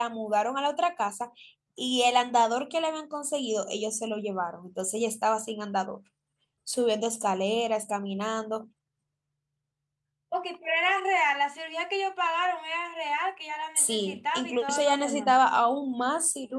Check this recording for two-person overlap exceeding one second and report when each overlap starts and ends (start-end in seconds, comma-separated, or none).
13.8-15.3